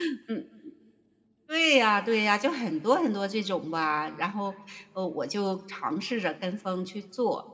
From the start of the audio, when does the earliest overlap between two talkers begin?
none

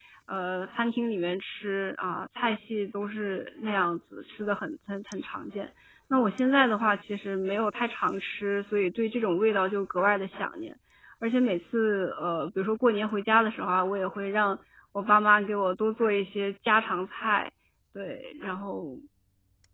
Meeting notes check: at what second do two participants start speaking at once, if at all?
none

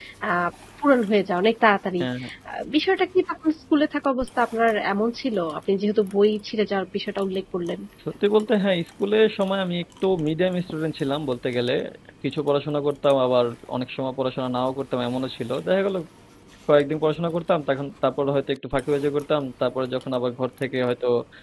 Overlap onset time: none

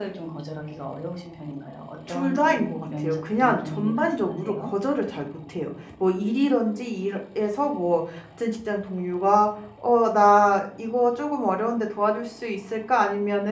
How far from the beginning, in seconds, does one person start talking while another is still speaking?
2.1 s

